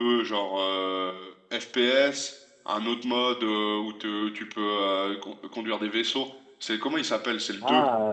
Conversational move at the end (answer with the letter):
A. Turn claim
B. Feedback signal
A